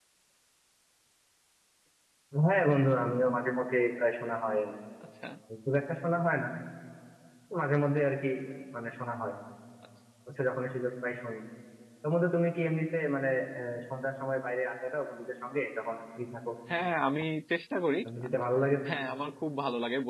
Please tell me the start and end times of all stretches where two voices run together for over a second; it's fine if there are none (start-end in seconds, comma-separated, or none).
none